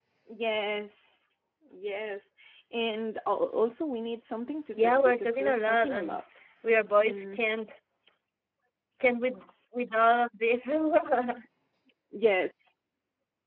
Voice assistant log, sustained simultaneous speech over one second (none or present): present